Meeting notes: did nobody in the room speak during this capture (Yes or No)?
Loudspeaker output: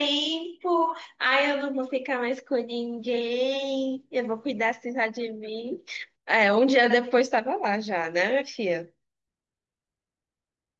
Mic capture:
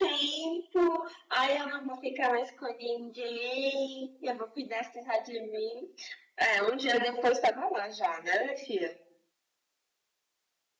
Yes